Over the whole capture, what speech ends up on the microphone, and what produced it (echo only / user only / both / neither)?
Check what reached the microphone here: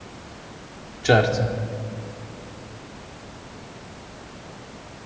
user only